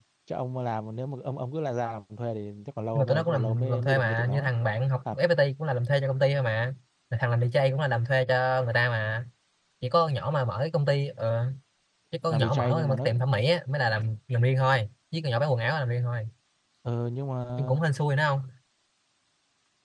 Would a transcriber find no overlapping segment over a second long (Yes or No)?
No